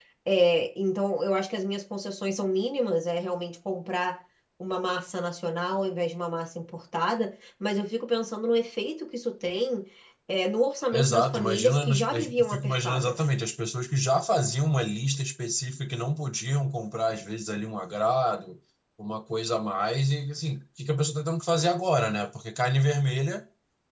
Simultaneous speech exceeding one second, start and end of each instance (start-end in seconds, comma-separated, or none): 10.9-13.3